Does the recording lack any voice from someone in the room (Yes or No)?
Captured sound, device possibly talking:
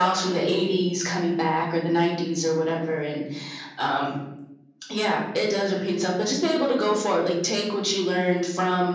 Yes